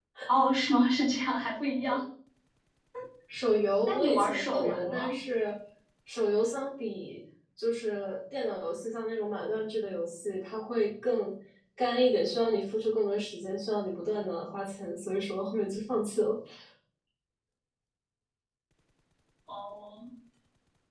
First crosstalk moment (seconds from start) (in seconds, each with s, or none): 3.9 s